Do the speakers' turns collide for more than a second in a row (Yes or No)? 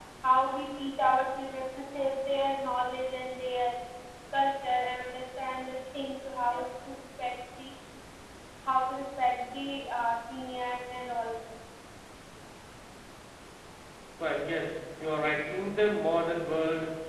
No